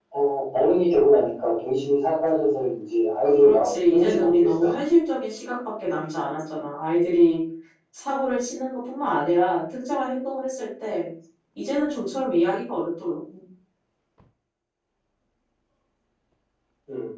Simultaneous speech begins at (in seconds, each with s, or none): 3.4 s